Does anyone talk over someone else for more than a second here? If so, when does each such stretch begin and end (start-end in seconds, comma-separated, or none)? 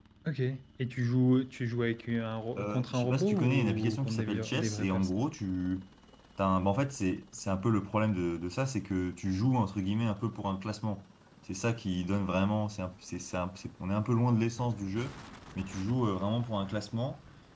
2.6-5.1